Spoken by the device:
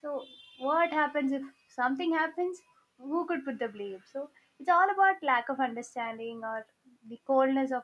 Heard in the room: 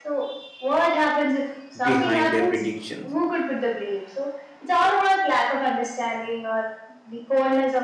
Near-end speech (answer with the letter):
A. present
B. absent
A